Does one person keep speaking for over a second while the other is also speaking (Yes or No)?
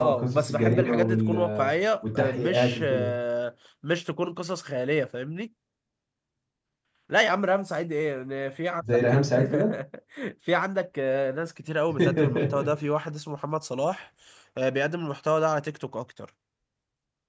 Yes